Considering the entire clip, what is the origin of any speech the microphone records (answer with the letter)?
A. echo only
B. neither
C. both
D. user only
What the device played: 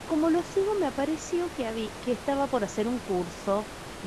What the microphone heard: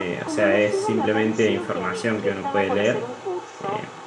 C